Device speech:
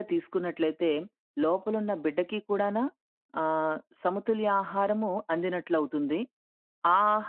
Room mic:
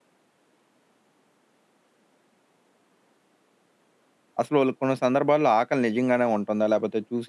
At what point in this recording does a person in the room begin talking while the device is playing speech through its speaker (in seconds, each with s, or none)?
4.4 s